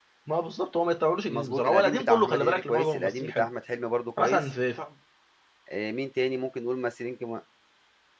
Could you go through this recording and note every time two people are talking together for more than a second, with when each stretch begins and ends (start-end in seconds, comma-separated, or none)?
1.3-3.5